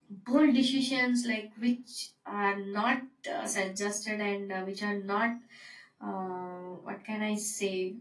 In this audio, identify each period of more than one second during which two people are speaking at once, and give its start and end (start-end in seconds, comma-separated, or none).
none